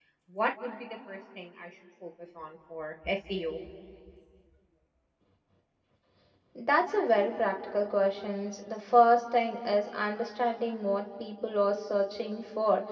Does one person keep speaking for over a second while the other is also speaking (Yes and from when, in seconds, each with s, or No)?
No